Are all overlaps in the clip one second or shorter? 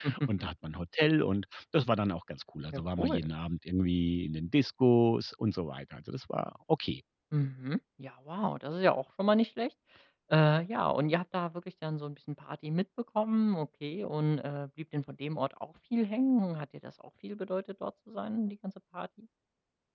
Yes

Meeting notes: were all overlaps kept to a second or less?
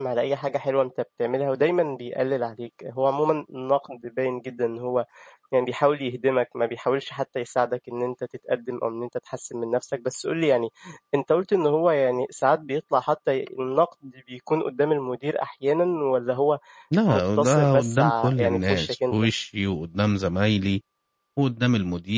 No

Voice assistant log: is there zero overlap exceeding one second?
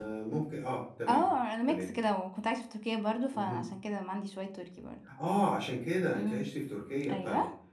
Yes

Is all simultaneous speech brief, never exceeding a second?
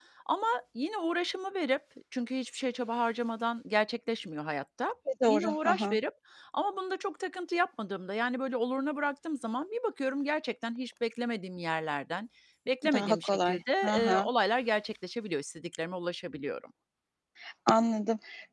No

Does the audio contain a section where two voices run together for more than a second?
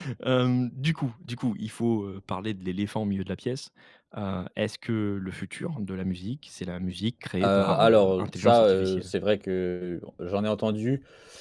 Yes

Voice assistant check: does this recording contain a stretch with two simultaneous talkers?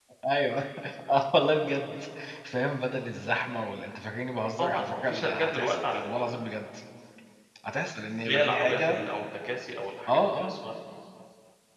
Yes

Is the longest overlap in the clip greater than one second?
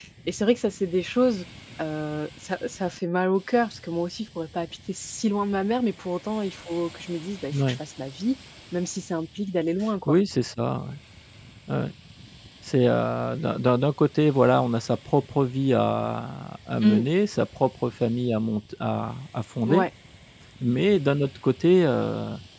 No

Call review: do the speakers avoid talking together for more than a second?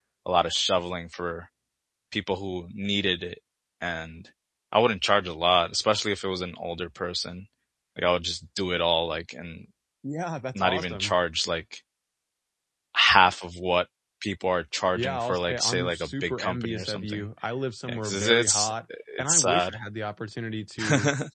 No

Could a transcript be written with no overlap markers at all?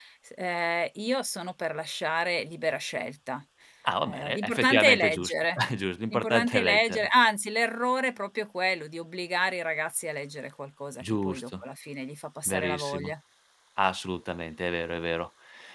No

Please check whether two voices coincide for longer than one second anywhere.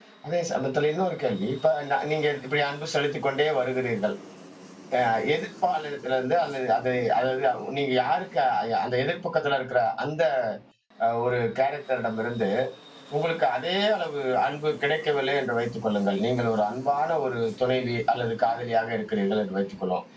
No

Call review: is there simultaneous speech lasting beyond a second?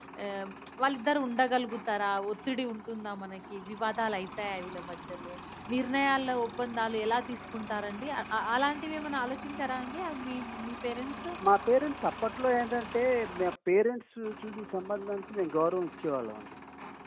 No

